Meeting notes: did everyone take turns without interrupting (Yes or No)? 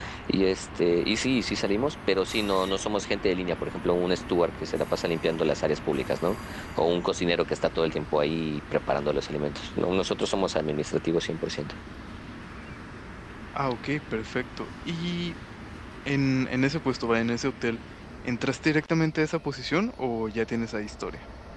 Yes